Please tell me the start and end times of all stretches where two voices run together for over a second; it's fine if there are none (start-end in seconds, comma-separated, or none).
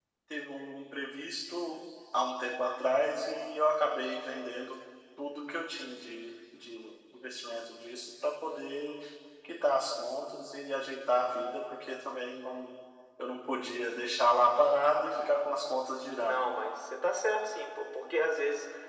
none